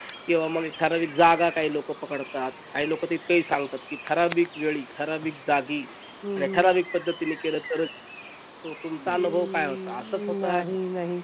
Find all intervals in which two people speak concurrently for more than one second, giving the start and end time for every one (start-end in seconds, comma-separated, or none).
9.0-10.6